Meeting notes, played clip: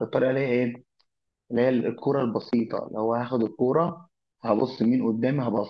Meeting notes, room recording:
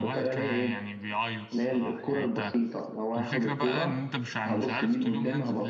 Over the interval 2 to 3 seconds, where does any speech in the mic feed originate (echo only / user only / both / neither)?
both